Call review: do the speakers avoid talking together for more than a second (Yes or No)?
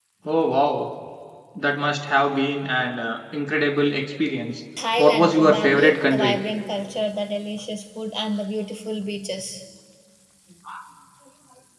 No